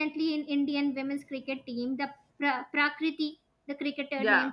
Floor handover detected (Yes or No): No